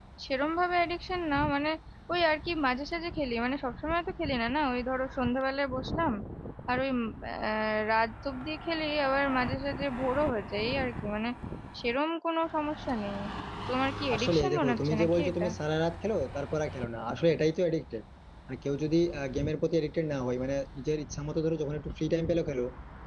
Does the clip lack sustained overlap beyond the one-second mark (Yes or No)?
No